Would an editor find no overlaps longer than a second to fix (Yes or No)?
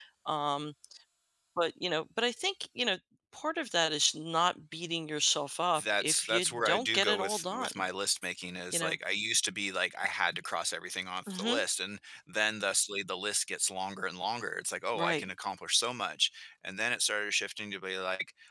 No